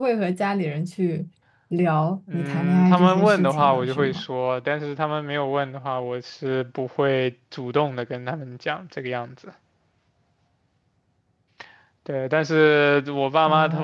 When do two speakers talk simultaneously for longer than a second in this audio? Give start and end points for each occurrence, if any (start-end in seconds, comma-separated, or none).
2.3-4.2